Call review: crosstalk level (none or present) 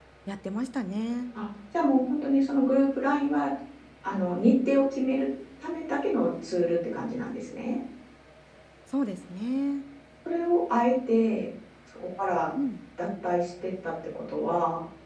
none